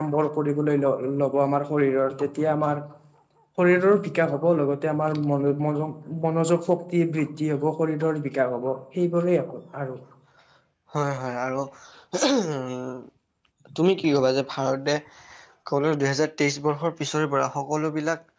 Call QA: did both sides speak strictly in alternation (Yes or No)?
Yes